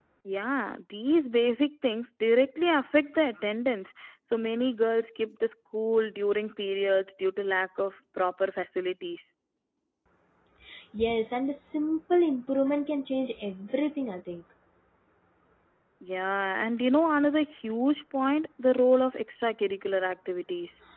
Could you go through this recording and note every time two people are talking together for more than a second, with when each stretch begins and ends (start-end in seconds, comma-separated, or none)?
none